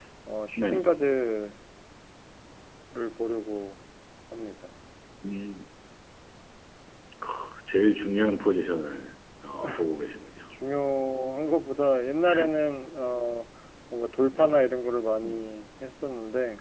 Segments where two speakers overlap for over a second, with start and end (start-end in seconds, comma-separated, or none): none